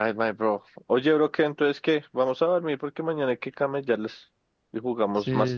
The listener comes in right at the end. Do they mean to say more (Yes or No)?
Yes